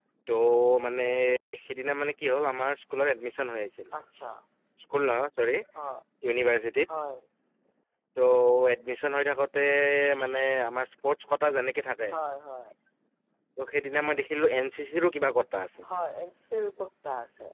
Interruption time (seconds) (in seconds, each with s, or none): none